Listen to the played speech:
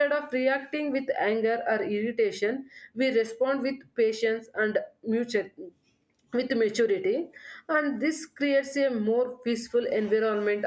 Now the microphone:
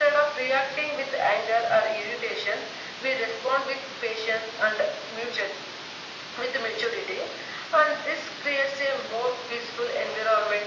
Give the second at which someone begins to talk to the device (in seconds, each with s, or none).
none